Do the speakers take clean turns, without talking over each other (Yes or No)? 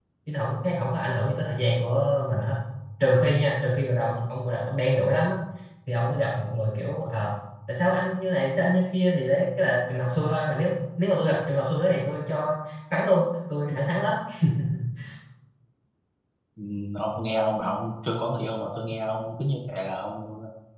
Yes